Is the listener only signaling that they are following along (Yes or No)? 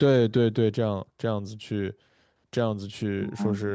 Yes